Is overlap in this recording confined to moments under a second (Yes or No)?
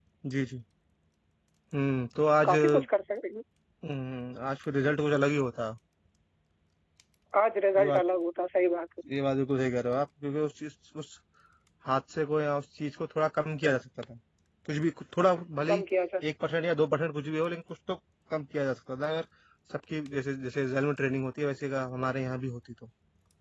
Yes